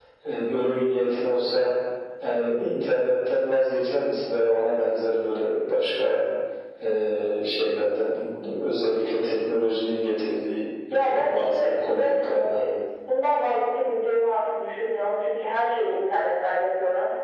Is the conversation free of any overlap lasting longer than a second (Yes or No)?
No